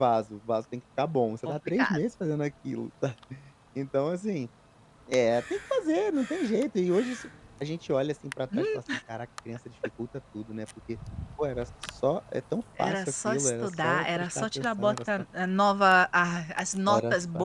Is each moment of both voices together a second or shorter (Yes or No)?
No